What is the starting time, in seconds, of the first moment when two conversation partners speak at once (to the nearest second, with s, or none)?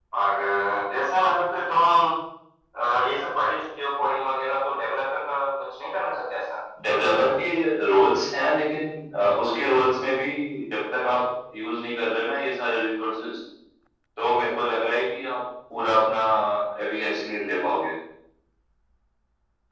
none